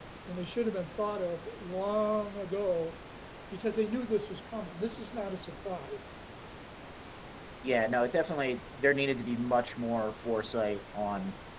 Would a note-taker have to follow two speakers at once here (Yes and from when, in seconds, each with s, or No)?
No